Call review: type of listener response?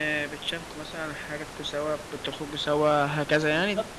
taking over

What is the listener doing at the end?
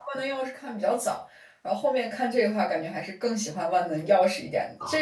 listening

